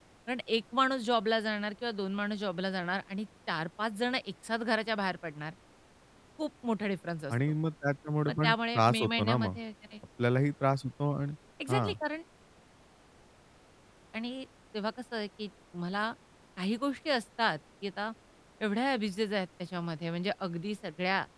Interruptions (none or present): present